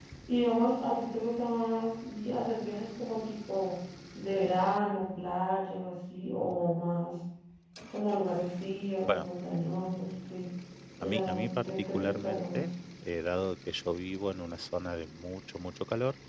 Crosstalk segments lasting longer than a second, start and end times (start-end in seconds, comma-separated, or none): 11.0-12.7